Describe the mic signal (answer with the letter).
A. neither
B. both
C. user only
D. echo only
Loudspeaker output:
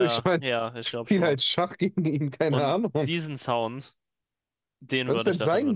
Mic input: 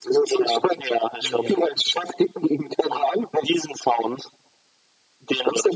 B